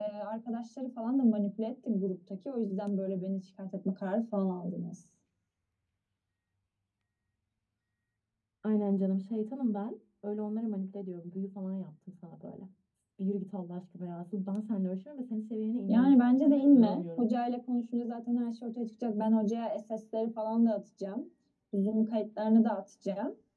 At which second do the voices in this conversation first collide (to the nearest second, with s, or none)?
16 s